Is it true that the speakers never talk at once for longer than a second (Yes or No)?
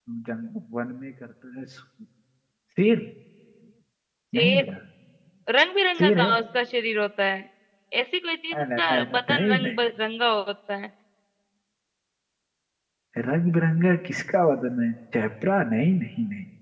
No